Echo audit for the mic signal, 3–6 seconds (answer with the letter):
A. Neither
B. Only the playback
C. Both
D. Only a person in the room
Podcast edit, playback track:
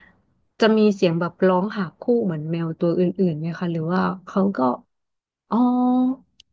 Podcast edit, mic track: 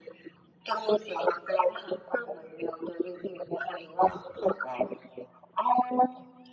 B